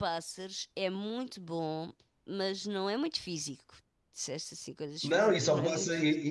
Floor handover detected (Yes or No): Yes